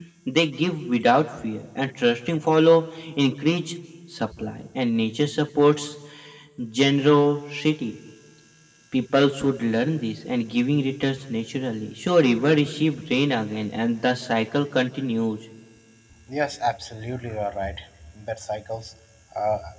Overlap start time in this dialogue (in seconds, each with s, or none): none